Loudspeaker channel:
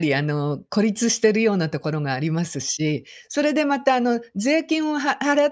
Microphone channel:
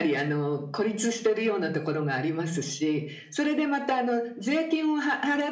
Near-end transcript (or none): none